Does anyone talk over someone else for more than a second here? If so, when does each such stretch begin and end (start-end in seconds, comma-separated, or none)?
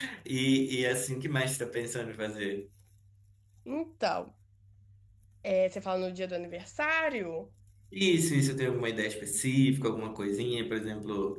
none